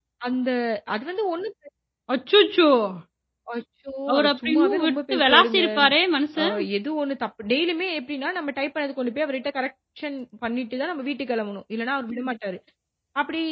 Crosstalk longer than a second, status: present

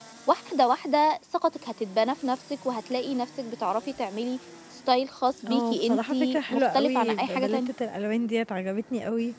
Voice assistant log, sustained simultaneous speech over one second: present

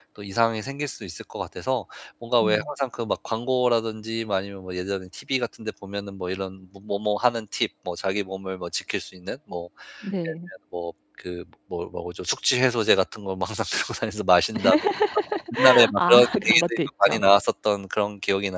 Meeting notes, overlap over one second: present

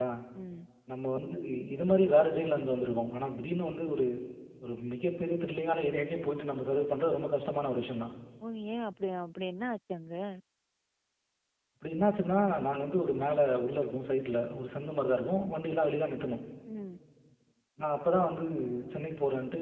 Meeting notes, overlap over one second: none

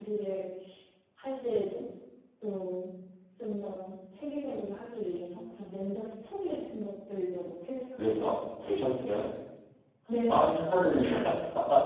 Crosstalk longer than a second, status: none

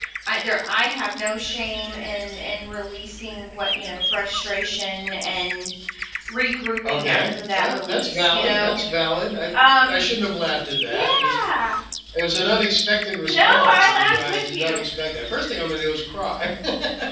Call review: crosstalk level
present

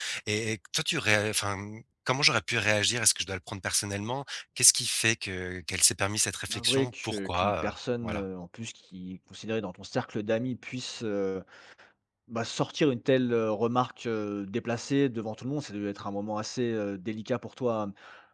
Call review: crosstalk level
present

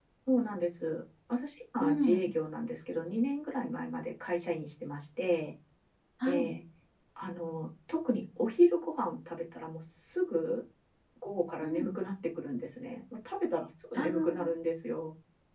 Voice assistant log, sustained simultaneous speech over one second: none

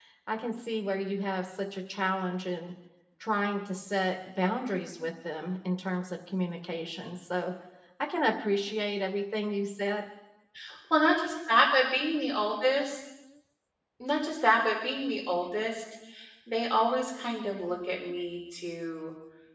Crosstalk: none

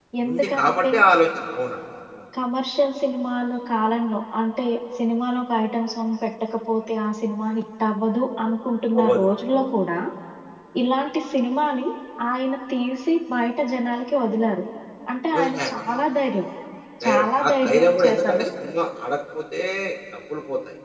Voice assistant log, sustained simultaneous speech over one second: present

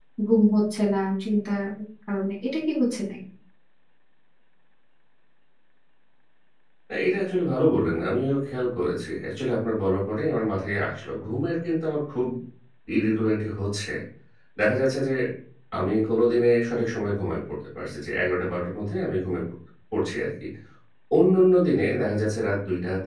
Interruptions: none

